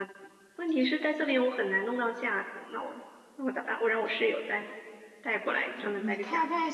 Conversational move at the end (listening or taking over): taking over